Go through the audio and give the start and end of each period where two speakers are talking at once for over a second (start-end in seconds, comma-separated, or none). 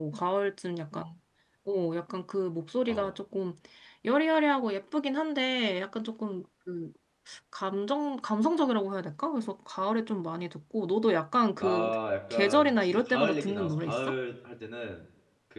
12.3-14.2